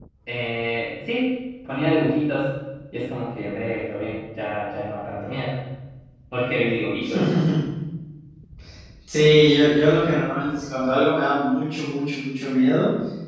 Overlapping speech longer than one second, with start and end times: none

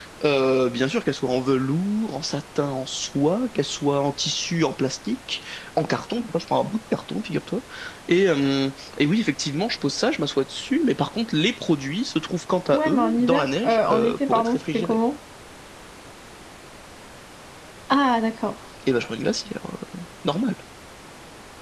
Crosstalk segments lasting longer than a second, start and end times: 12.7-15.0

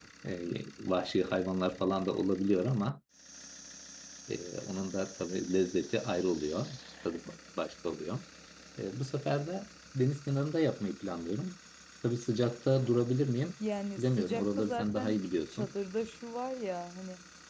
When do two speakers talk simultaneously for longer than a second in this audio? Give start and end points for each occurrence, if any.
14.0-15.7

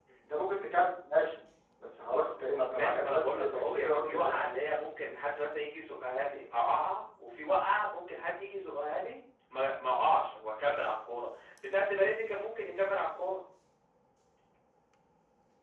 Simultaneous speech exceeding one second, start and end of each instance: 2.5-4.4

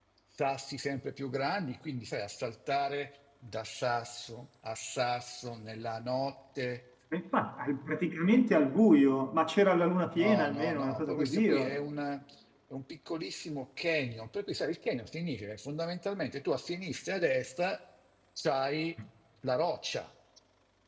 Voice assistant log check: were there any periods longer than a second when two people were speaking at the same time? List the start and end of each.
10.2-11.8

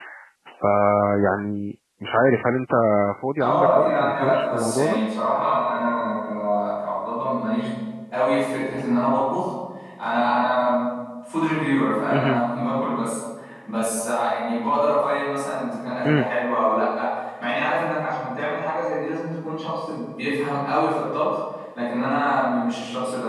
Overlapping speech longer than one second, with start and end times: 3.4-5.0

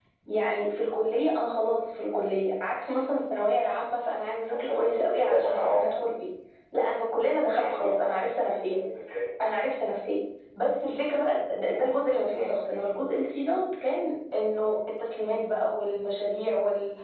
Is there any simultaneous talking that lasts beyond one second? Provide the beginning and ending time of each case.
4.5-5.9

